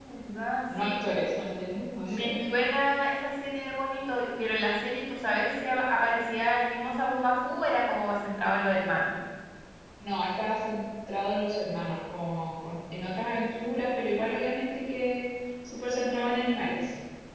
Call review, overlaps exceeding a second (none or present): none